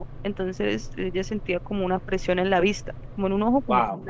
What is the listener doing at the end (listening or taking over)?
taking over